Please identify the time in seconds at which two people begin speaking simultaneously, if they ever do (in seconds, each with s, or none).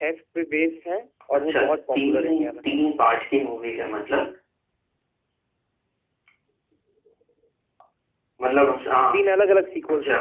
1.4 s